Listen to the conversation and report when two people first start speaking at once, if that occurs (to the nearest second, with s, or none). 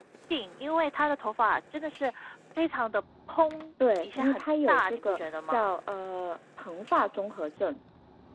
4 s